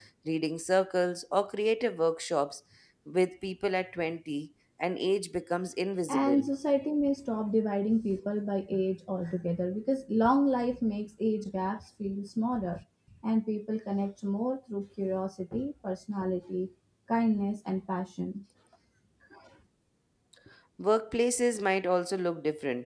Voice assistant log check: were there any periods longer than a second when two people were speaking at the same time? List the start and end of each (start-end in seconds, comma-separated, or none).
none